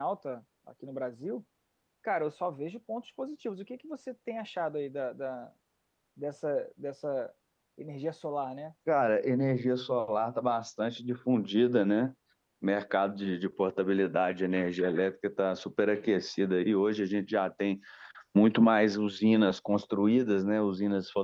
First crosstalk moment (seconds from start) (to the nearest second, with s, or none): none